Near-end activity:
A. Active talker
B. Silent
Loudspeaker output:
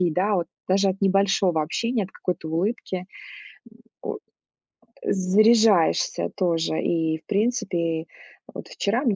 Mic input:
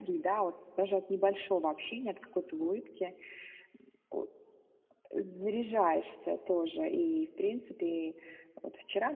B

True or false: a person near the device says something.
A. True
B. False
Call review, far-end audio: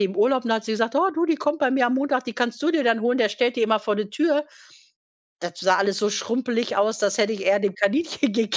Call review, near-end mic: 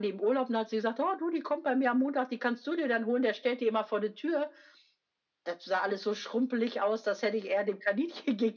B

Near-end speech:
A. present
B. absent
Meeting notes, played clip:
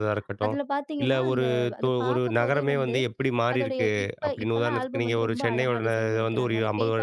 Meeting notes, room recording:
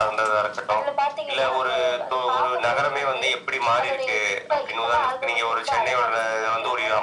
B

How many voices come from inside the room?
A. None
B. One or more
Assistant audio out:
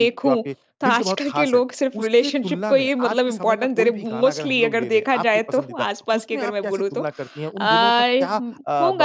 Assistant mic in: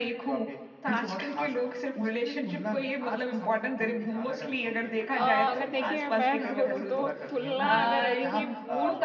B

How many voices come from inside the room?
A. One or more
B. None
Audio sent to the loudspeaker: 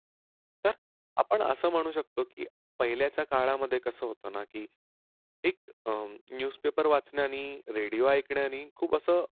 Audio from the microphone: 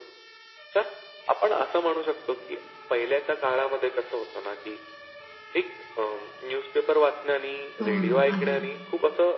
A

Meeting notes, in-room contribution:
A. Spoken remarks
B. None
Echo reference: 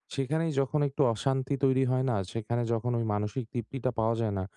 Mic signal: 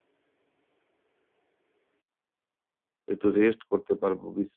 A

